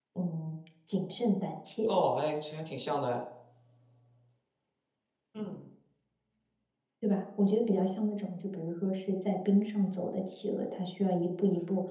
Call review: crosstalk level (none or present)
none